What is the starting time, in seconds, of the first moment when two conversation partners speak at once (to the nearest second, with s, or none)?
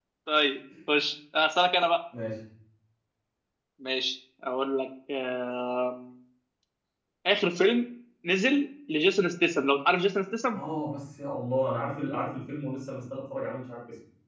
none